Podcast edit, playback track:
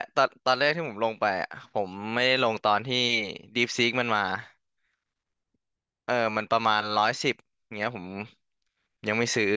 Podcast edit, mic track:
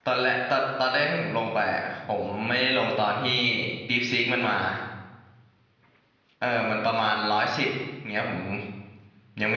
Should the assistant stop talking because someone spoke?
No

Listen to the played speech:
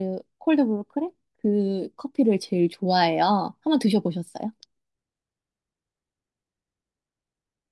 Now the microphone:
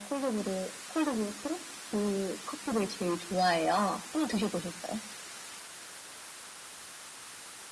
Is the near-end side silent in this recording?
Yes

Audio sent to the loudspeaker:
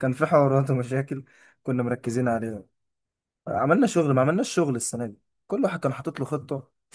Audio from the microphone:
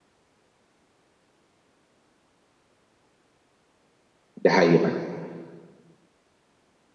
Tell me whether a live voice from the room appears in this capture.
Yes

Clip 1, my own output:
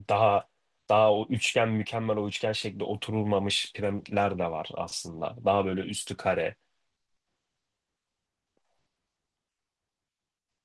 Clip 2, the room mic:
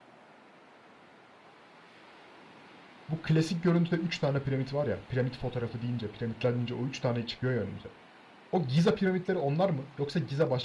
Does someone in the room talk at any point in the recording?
Yes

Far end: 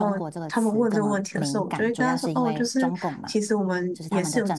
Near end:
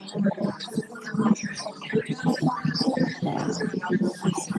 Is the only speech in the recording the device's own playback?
No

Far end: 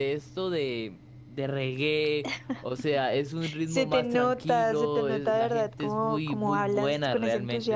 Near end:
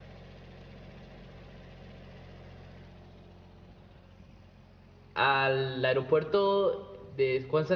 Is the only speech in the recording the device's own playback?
No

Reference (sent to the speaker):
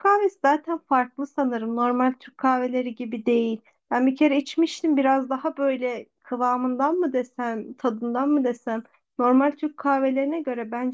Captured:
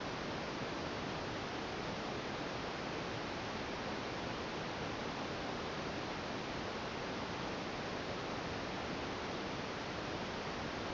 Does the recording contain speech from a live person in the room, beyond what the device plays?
No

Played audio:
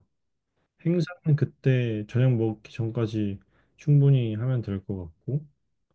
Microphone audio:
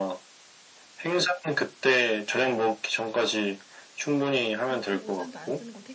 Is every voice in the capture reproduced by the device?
No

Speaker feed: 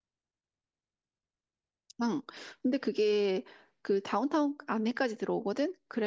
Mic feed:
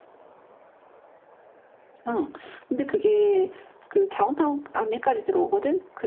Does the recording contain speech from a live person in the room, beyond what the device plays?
No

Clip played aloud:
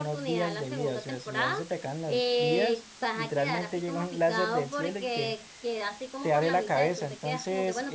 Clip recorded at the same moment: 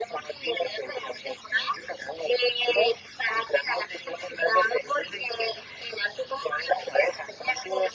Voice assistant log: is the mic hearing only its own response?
Yes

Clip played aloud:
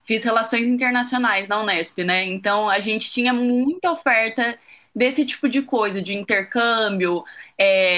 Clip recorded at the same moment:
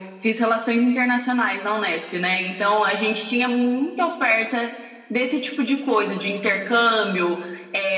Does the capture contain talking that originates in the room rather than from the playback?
No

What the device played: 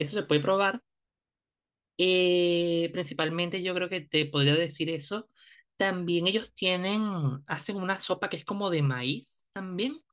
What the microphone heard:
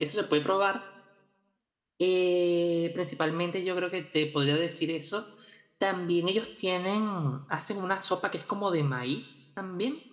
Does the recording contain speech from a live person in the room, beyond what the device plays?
No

